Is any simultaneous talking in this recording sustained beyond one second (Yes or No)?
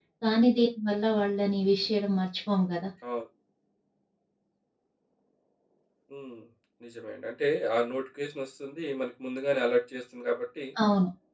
No